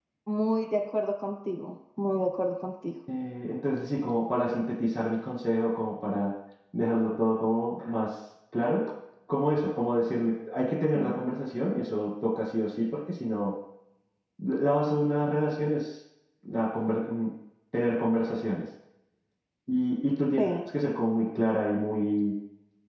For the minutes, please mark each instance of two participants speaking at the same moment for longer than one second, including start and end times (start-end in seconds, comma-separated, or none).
none